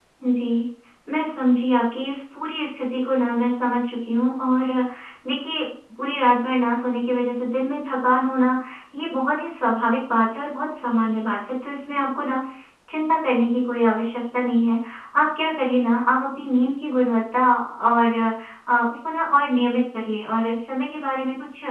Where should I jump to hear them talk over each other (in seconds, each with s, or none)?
none